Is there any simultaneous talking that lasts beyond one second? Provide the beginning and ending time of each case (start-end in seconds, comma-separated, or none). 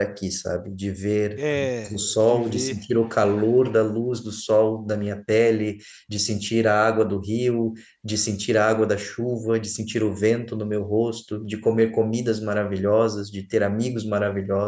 1.4-2.8